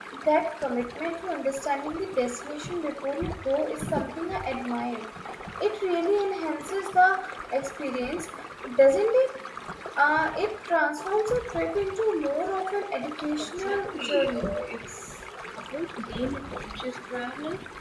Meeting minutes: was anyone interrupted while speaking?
Yes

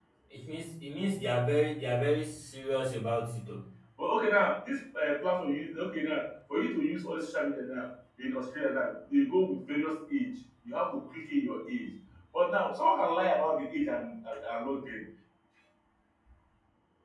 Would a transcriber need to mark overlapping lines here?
No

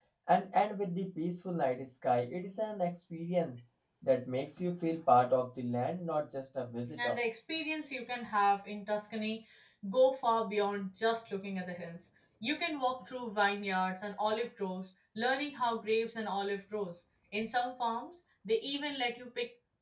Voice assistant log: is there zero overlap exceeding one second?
Yes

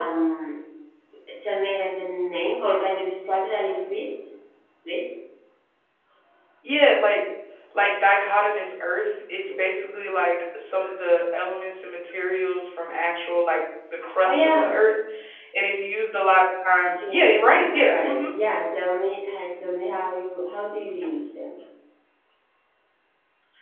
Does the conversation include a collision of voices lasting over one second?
Yes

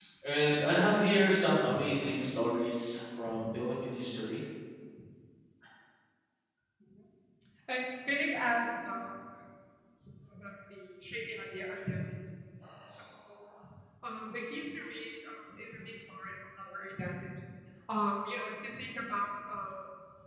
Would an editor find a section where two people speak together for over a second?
No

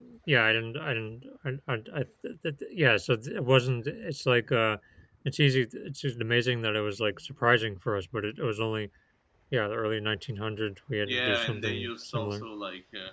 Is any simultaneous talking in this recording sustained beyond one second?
Yes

